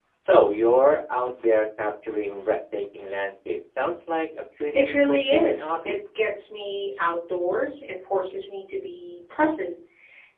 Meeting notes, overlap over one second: present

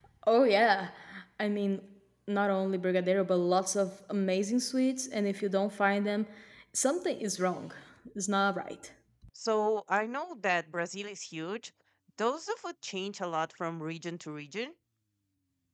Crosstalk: none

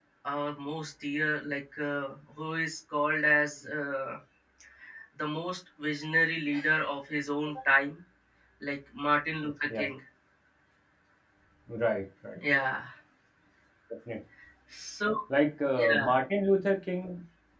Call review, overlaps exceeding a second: none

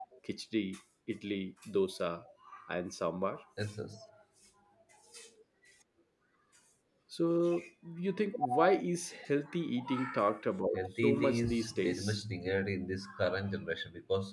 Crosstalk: present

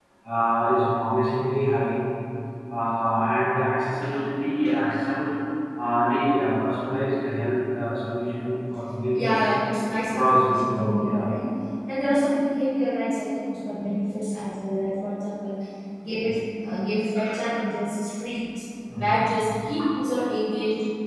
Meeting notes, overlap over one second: present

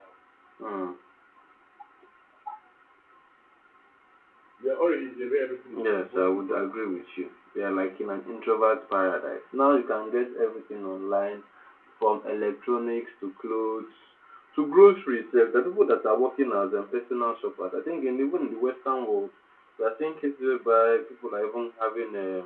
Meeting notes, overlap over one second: present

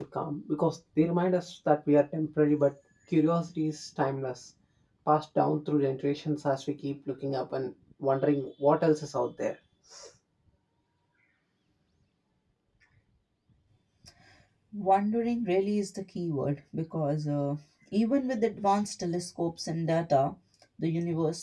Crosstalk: none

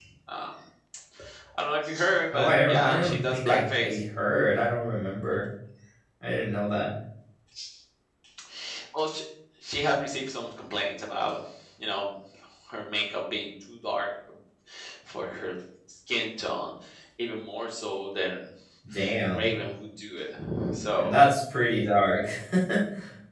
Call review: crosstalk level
present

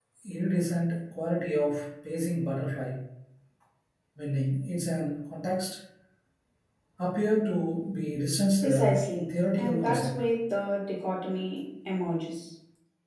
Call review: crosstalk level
present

